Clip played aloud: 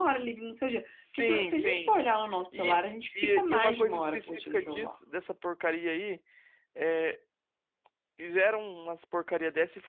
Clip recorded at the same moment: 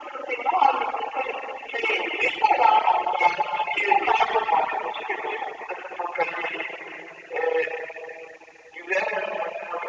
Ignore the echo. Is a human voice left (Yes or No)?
No